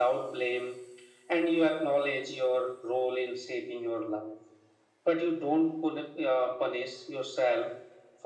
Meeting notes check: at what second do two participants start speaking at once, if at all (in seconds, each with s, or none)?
none